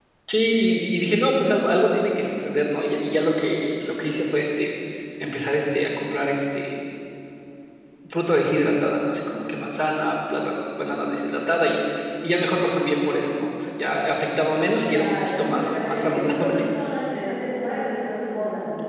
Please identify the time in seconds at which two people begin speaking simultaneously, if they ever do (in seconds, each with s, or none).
14.8 s